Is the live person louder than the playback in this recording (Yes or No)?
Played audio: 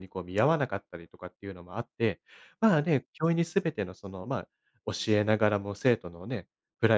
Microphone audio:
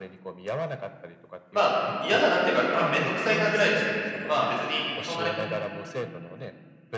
Yes